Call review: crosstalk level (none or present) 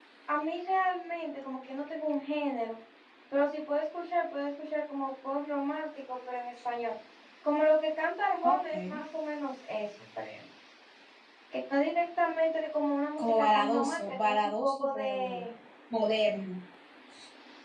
present